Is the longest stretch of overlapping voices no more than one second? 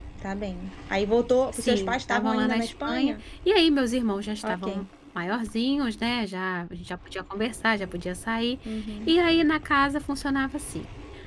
No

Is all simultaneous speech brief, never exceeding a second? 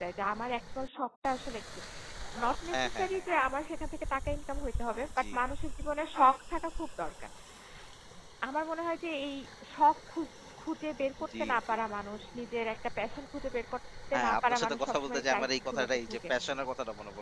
No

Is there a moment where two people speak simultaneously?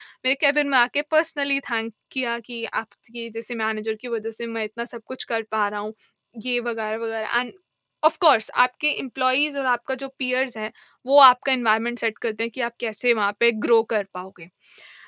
No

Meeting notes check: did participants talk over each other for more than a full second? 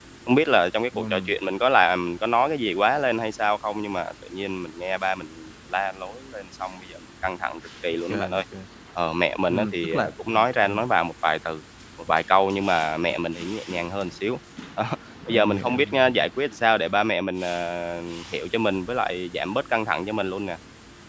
Yes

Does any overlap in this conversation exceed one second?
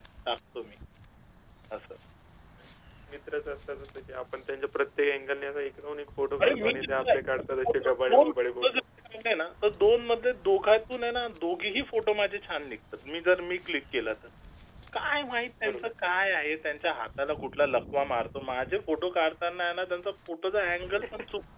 Yes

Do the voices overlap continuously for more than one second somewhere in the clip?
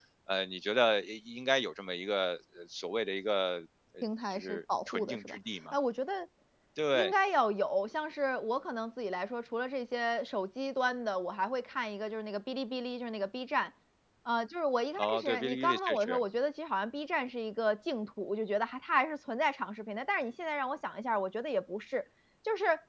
Yes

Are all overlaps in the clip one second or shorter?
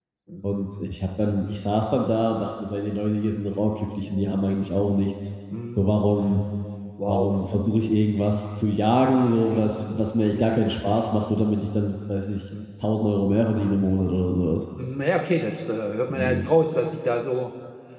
Yes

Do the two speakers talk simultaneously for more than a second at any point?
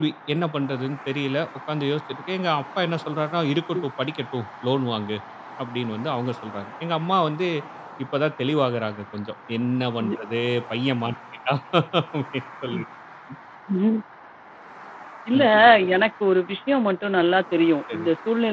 No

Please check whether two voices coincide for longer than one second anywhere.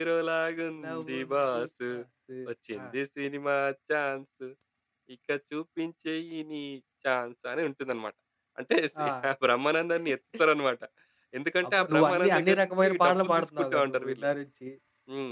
Yes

